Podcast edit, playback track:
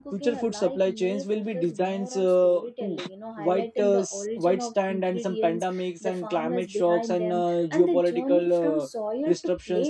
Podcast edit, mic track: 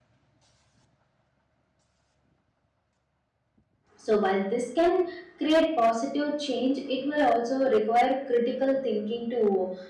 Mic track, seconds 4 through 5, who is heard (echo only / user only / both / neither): user only